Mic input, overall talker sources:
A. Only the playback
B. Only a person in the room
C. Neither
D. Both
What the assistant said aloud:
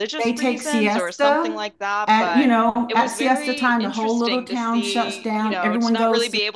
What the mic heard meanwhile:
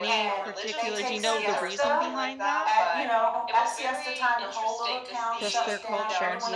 D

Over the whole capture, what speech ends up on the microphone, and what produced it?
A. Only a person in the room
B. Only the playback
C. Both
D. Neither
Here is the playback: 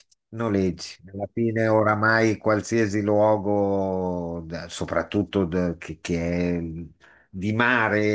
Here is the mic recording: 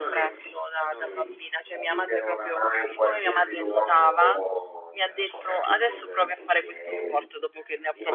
C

